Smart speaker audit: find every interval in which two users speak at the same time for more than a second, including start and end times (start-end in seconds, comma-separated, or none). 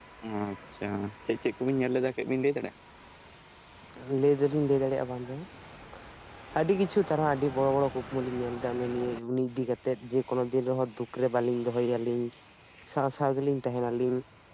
none